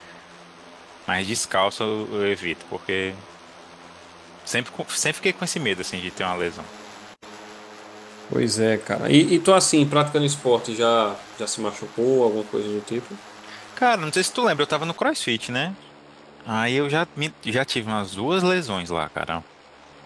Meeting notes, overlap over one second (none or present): none